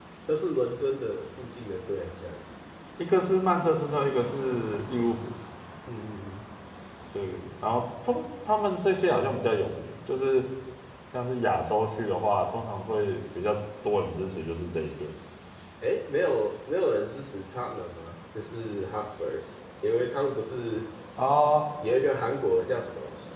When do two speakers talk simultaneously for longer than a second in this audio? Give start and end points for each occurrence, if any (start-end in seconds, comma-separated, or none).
none